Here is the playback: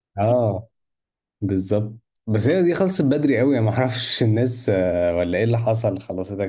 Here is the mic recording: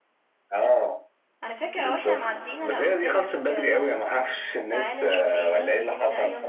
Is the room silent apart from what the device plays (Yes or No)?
No